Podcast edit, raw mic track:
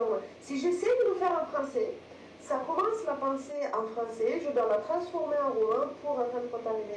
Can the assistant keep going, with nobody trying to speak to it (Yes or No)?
Yes